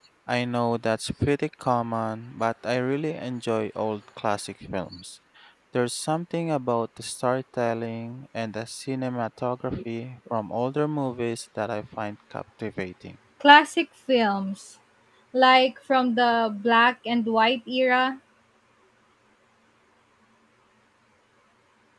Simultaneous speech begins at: none

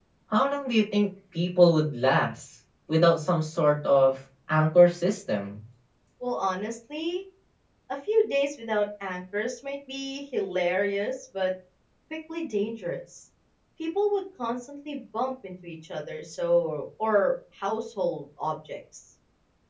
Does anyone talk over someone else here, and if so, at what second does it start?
none

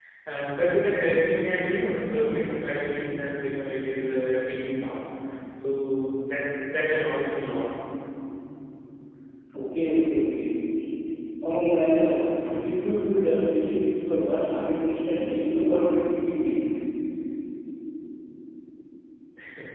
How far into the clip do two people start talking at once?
none

